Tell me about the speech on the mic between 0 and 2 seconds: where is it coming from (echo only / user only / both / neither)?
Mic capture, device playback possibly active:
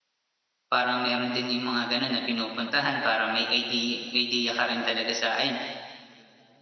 user only